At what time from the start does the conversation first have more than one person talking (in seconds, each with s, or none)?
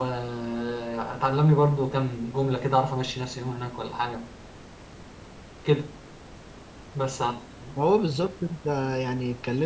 none